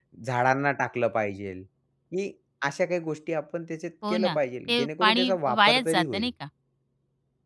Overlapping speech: Yes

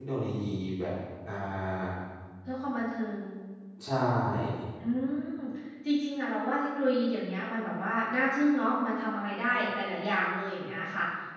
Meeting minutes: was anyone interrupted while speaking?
No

